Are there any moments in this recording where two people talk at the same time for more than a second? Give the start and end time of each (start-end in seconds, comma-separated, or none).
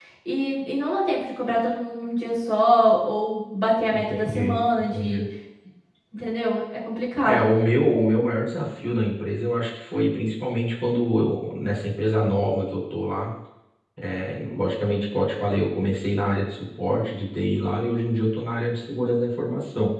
3.9-5.2